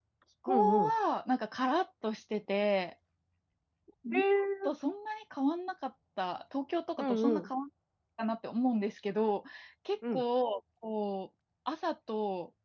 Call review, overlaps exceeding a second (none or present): none